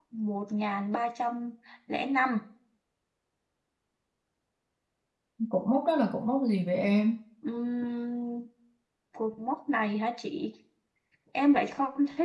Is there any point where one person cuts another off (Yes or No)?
No